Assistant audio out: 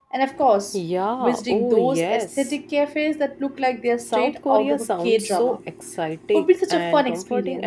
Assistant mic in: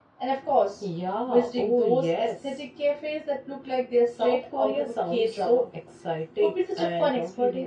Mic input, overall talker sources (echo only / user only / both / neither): echo only